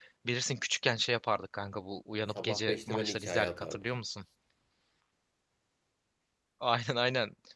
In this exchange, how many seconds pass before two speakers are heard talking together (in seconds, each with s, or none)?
2.4 s